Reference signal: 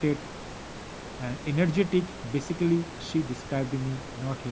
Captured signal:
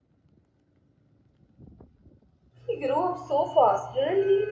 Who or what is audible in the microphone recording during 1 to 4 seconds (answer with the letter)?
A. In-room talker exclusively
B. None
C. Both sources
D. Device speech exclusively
A